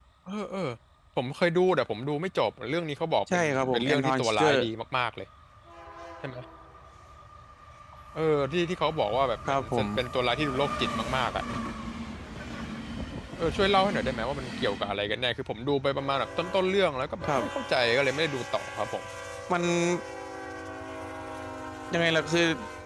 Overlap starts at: 3.3 s

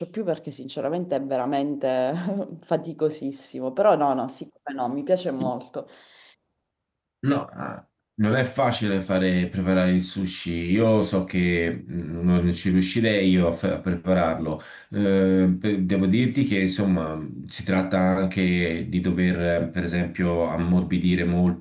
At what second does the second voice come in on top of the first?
none

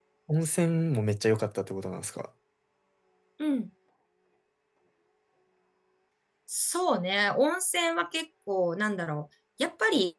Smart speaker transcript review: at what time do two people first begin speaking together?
none

